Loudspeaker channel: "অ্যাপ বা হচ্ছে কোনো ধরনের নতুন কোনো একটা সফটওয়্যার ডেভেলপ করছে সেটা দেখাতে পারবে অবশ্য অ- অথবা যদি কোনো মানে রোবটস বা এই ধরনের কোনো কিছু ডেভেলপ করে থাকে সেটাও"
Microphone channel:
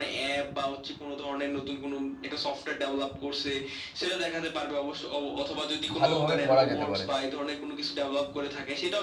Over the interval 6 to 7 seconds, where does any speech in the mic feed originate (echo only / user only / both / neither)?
both